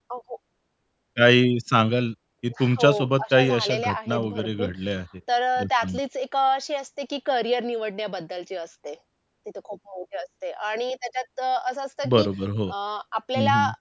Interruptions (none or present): present